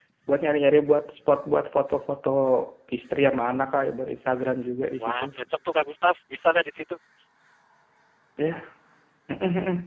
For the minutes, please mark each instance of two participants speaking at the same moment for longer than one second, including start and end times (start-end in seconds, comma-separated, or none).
none